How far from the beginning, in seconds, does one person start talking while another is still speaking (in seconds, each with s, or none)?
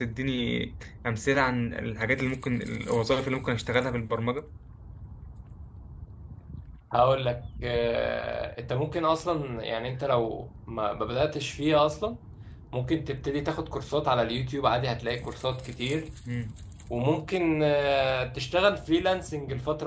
none